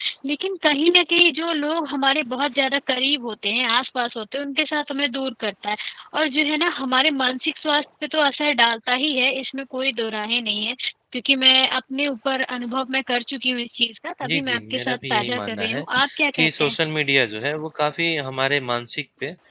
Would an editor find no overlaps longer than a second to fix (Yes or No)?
No